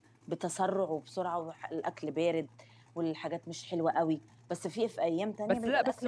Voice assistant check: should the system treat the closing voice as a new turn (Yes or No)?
Yes